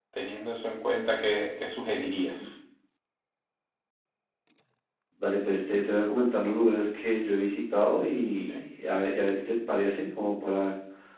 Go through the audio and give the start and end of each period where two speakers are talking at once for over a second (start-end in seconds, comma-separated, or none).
none